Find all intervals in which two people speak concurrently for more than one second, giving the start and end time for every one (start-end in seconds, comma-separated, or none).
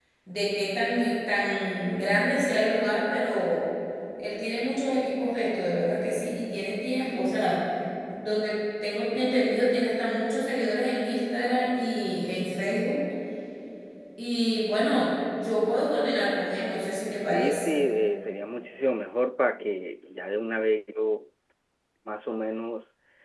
none